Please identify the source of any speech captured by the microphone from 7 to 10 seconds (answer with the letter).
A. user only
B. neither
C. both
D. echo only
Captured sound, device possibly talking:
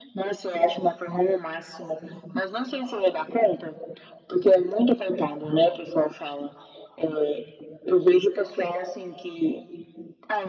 D